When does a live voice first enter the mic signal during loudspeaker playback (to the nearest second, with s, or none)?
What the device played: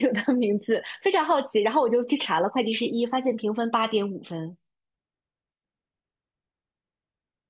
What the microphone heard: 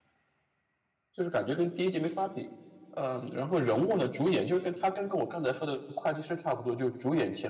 1 s